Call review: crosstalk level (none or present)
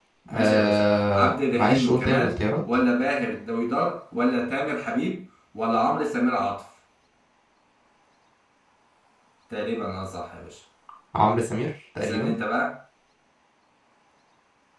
present